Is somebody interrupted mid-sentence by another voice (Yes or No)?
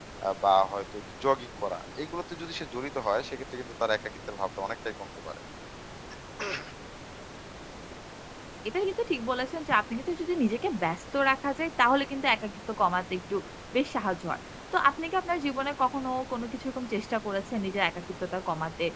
No